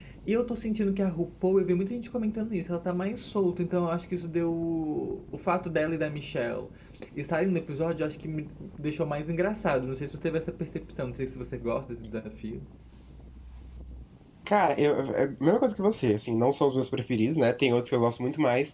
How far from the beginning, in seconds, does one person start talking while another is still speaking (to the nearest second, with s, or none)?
none